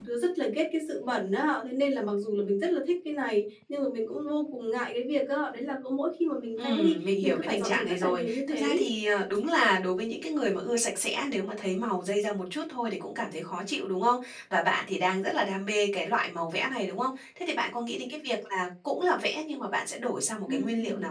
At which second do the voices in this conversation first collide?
6.6 s

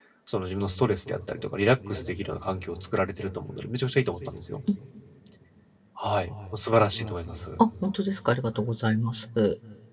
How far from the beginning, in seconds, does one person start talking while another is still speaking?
none

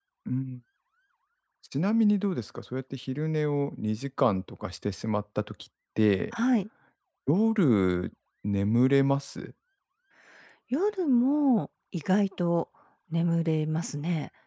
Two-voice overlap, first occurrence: none

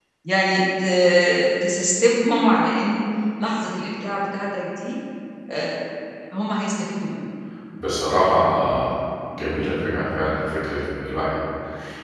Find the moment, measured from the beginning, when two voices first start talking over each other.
none

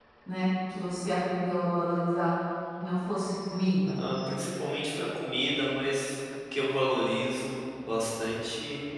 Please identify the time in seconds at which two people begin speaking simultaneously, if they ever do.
none

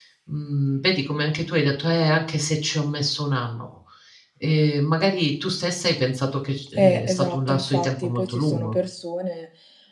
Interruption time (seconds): 6.8 s

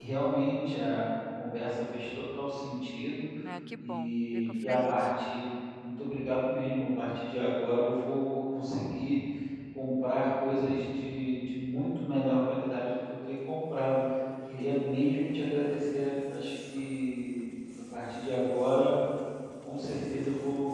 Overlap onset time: 3.8 s

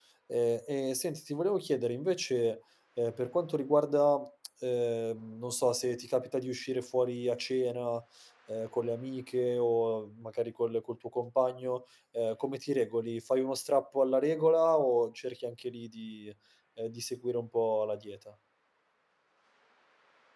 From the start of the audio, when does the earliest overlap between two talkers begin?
none

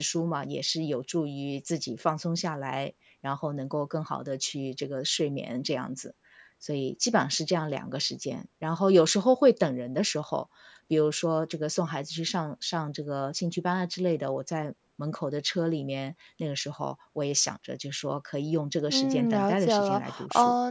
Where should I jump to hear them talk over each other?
18.9 s

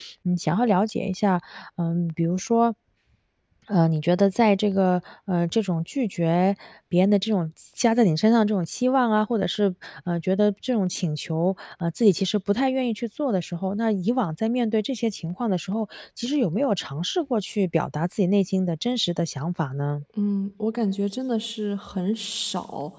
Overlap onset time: none

